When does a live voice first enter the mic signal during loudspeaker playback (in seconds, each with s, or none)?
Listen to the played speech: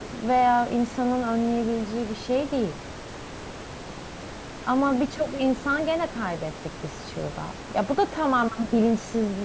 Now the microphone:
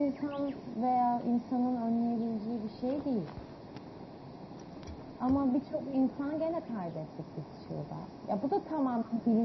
none